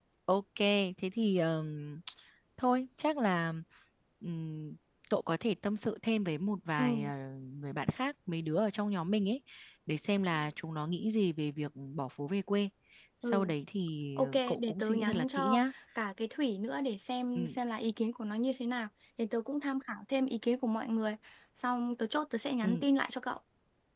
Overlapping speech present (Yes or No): Yes